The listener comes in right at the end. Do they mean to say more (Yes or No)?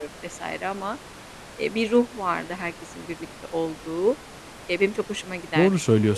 Yes